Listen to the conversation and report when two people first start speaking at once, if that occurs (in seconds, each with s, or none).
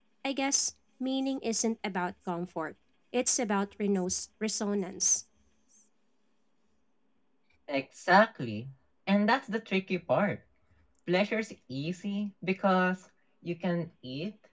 none